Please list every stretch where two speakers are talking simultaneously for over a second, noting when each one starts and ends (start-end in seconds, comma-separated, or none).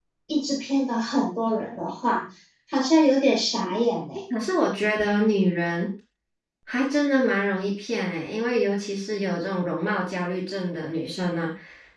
none